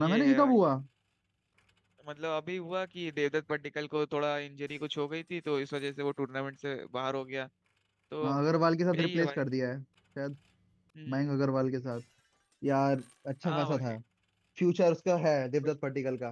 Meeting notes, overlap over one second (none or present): none